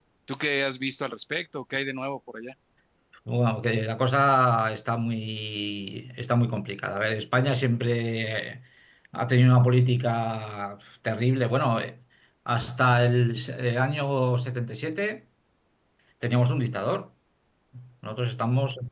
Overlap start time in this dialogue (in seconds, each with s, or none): none